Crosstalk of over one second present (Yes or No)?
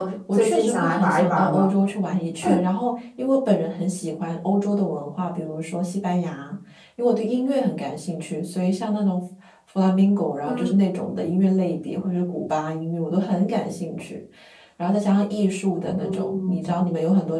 Yes